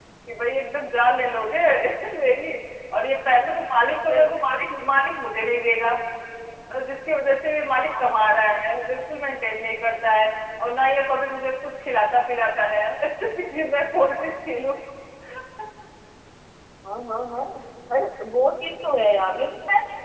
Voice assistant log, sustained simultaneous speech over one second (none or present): none